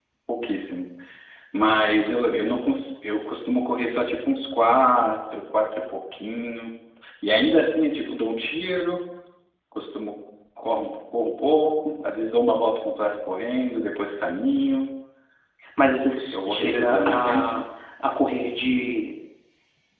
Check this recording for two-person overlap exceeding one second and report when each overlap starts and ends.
16.3-17.5

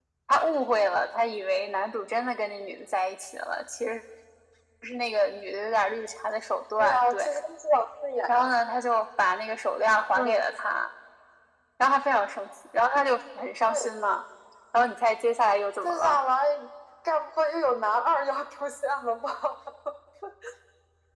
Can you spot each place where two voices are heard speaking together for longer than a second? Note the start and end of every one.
none

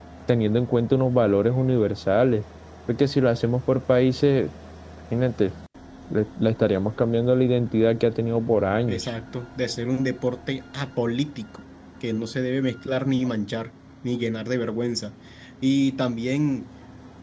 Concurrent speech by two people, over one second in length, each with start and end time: none

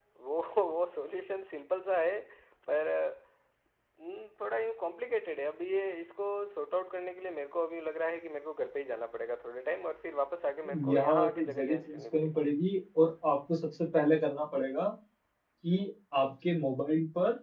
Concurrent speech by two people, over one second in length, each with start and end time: 10.9-12.4

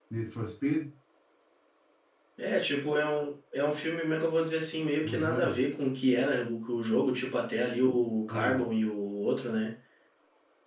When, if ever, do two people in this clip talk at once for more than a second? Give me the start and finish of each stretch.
none

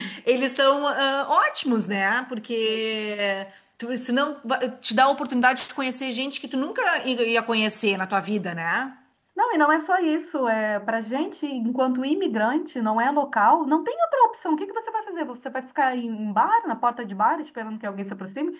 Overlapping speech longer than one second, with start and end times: none

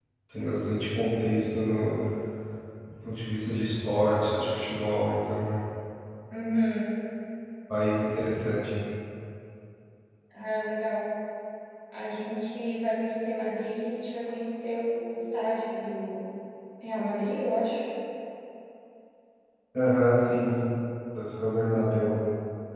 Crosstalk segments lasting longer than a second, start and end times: none

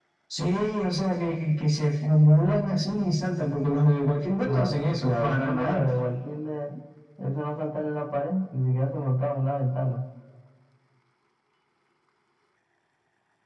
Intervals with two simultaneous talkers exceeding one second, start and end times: 4.4-5.8

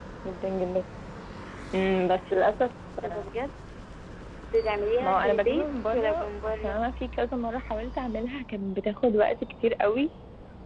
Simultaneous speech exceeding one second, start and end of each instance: 5.0-6.8

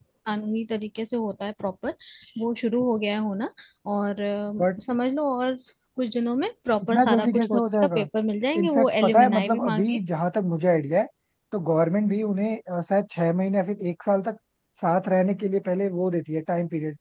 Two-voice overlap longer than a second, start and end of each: 6.8-8.1, 8.6-10.0

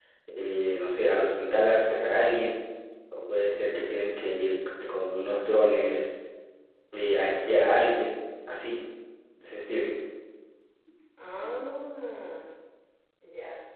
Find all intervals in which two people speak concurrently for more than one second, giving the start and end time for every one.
none

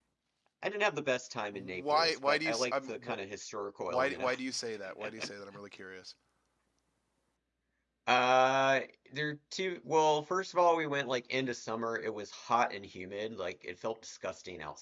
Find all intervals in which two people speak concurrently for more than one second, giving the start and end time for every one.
1.5-3.0

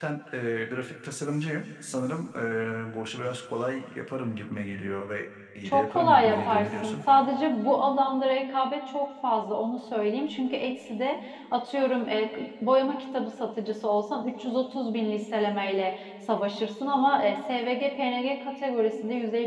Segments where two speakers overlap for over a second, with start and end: 5.7-7.0

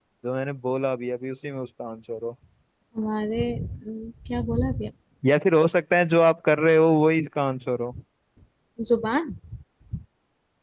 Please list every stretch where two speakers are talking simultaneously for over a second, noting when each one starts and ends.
none

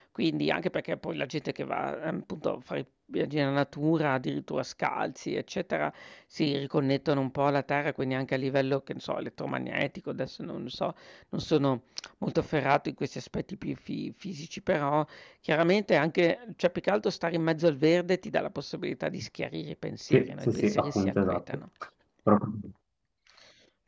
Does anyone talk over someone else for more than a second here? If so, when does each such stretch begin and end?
20.1-21.4

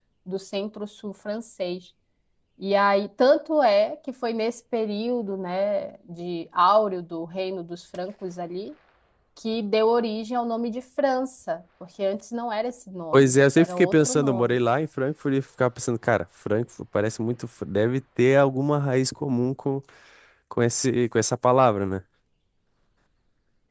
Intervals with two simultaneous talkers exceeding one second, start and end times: 13.1-14.6

